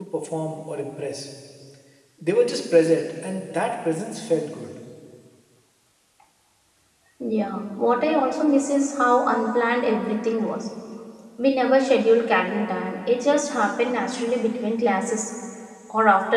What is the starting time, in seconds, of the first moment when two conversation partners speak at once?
none

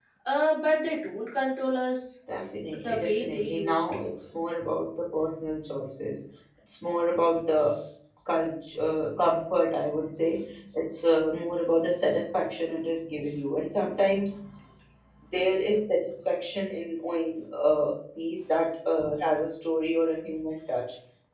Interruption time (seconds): 2.7 s

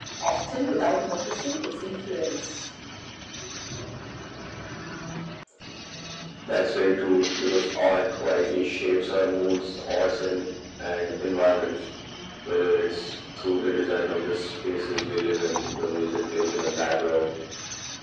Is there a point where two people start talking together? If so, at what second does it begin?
none

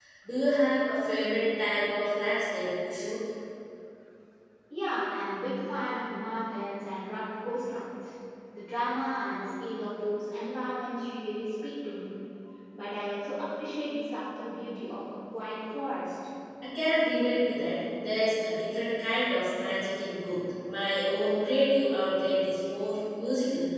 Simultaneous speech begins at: none

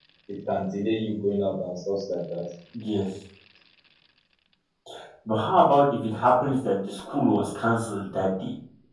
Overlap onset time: none

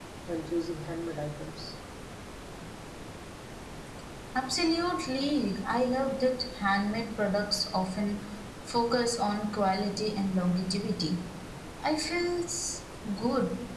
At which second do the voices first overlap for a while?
none

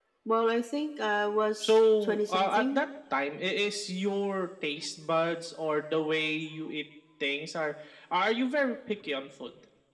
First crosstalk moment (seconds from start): 1.6 s

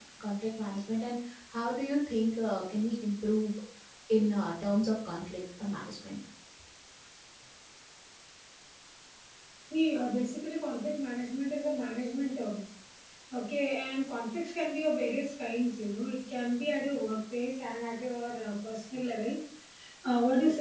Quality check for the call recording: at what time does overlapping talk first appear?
none

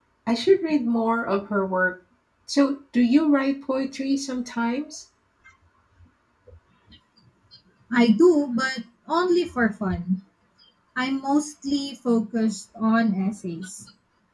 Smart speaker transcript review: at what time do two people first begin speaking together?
none

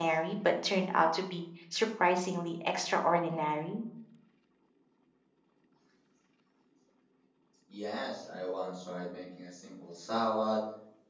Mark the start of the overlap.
none

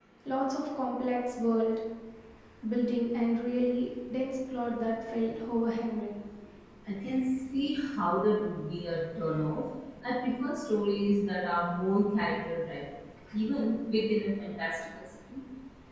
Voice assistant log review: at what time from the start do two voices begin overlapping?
none

